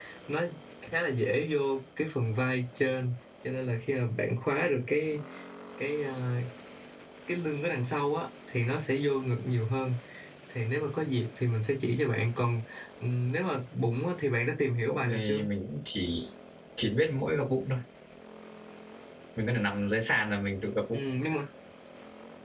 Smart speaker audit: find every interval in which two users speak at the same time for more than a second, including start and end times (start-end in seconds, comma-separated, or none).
none